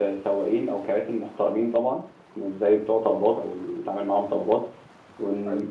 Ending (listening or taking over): listening